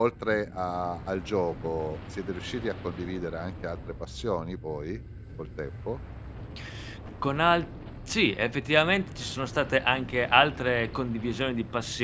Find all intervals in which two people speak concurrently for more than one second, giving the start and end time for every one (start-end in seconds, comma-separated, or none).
none